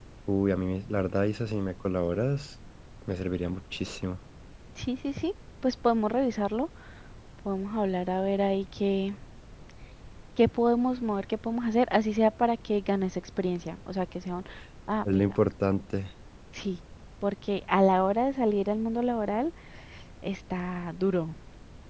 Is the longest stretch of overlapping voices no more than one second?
Yes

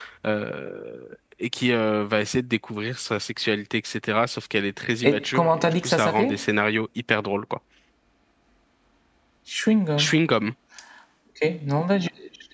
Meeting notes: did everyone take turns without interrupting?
No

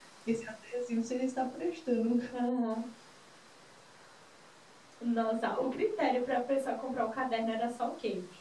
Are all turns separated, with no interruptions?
Yes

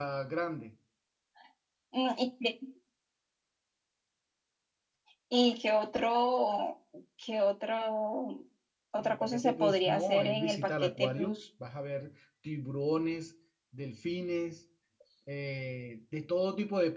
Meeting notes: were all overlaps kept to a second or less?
No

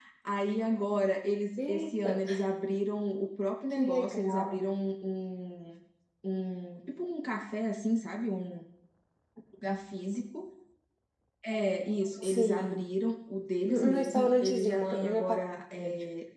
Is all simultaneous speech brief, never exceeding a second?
No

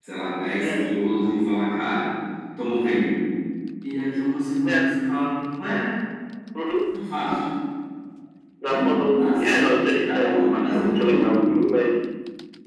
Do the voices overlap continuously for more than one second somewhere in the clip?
Yes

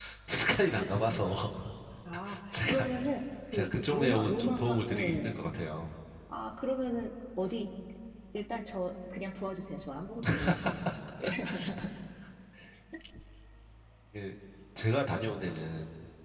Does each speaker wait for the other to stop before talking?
No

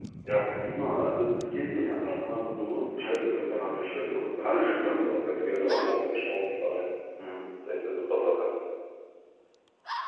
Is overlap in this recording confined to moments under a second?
No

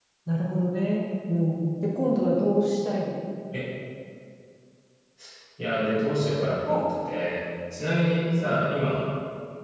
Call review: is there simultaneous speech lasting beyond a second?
No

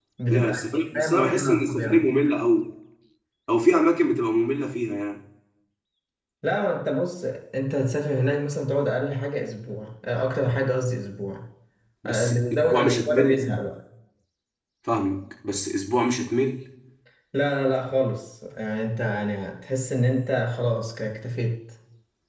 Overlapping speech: Yes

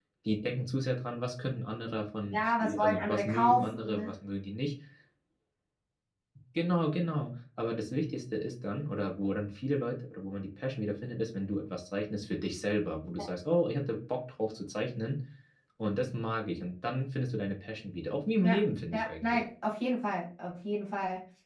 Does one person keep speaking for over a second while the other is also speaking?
Yes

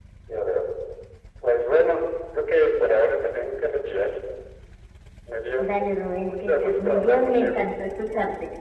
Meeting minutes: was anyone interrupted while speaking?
Yes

